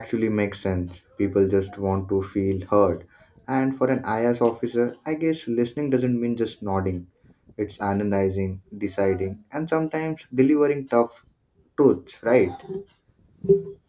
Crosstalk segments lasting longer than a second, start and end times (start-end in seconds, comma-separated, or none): none